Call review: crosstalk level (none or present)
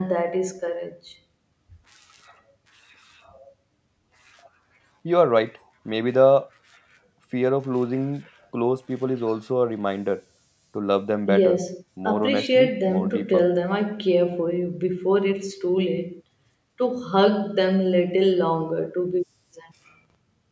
present